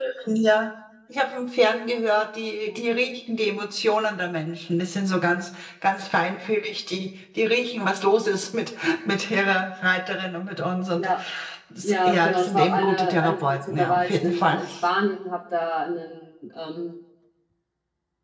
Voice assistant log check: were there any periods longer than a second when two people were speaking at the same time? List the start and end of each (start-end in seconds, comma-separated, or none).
11.8-14.6